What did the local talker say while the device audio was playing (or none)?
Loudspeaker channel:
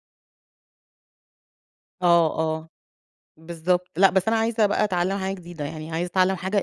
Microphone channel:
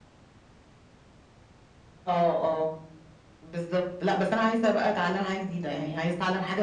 none